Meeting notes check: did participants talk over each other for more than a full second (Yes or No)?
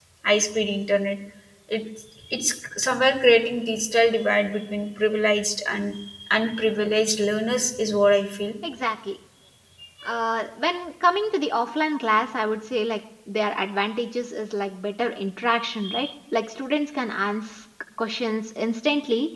No